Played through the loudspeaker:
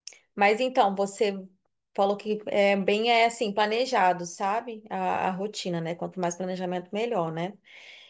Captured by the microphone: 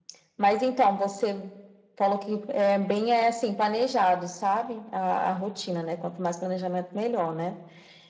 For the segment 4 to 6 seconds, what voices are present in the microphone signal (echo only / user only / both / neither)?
echo only